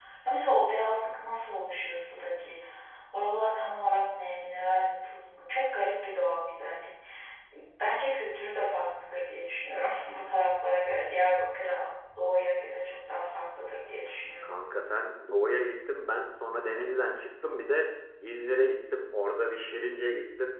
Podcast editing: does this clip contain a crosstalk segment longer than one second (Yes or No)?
No